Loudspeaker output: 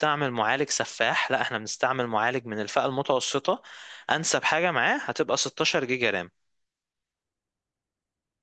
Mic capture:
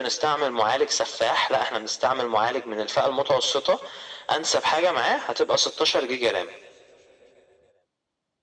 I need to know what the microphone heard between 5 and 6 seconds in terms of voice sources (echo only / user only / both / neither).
echo only